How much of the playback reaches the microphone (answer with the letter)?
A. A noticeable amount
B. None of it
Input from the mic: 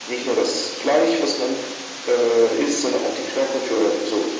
A